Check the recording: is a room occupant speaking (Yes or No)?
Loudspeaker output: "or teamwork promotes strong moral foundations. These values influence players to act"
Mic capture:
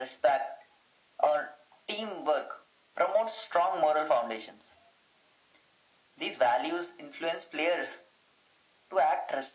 No